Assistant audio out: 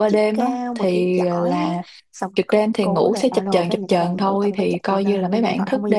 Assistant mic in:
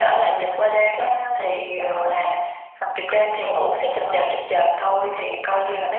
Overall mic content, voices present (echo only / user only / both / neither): echo only